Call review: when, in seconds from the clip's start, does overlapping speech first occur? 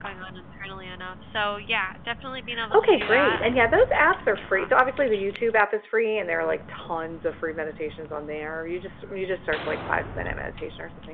2.5 s

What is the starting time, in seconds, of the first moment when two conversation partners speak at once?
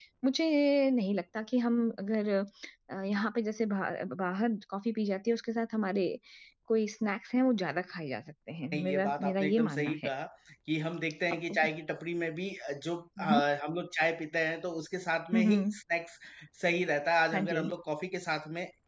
8.7 s

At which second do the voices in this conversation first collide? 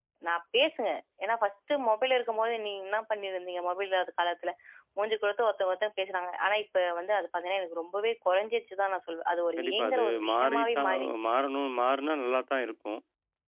9.6 s

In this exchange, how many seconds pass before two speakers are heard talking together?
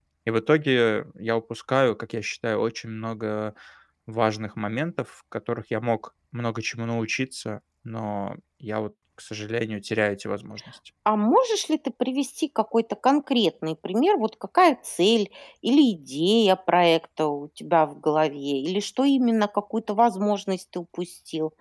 none

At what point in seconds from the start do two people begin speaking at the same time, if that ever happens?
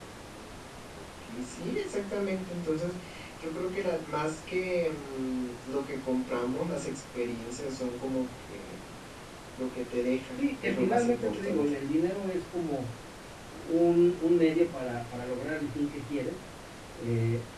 10.4 s

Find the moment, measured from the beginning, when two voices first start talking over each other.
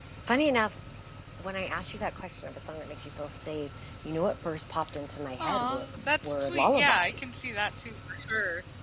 5.4 s

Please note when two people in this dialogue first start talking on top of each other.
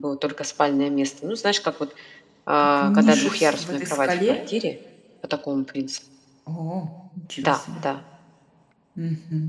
2.6 s

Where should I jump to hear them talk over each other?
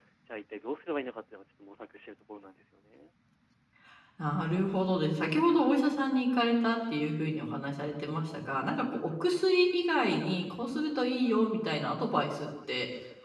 none

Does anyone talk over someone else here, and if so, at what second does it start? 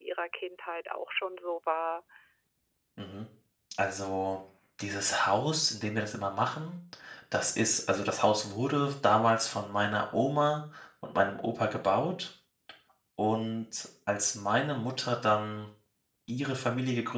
none

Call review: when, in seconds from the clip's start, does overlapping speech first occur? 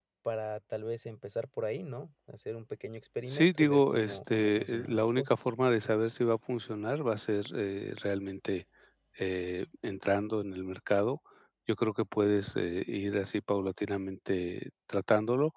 3.3 s

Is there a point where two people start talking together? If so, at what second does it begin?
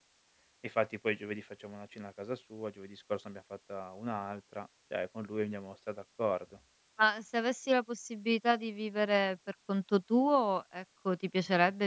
none

